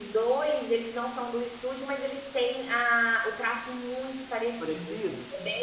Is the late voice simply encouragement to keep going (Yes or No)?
No